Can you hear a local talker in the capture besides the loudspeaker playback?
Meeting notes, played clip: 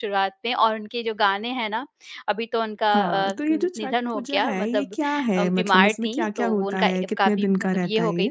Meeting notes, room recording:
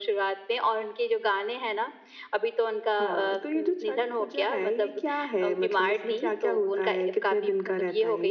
No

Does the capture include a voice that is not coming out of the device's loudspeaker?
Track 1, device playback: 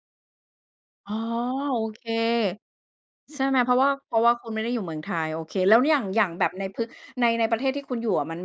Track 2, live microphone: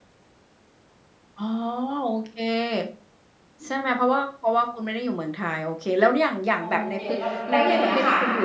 Yes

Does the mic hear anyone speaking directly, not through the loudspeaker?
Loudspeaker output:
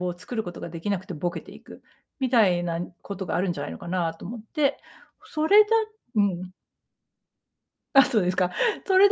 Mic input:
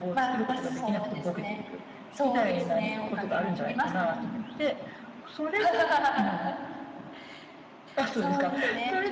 Yes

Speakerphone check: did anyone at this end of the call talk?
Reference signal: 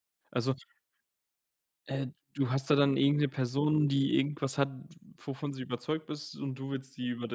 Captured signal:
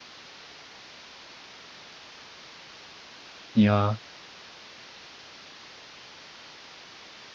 Yes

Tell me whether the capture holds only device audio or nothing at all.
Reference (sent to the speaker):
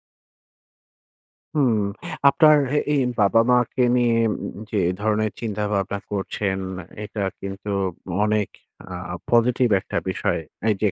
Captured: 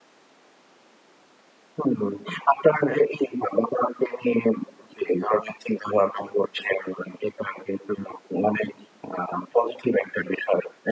Yes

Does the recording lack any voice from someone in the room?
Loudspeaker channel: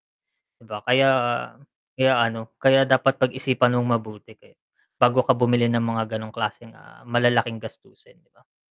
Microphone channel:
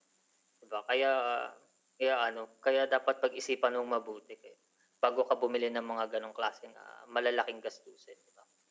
Yes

